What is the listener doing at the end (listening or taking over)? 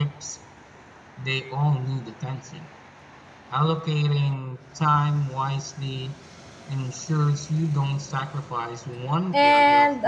taking over